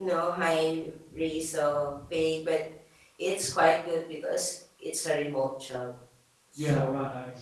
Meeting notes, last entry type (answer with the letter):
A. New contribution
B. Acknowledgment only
A